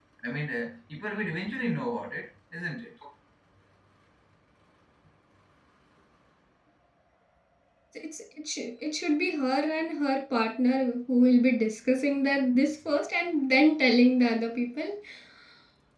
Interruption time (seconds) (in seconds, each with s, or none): none